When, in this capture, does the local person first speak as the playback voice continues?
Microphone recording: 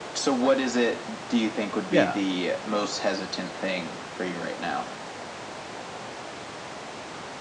1.9 s

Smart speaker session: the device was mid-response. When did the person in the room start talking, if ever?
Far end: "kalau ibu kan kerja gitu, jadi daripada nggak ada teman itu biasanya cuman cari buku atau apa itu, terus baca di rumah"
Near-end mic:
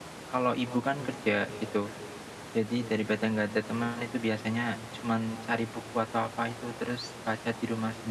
none

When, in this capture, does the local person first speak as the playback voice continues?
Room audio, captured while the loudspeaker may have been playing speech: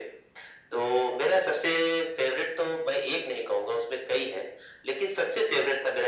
none

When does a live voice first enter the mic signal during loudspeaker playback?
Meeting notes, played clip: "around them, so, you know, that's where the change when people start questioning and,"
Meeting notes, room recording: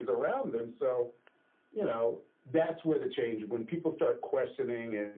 none

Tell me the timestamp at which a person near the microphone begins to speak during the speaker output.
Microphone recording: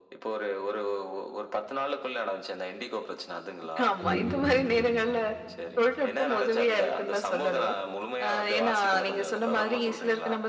4.0 s

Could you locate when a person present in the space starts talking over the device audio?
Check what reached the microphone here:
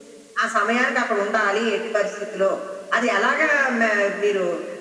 none

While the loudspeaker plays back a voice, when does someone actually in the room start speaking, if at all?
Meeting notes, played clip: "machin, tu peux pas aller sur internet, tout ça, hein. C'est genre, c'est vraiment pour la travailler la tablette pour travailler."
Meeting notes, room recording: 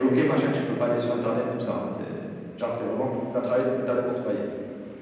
none

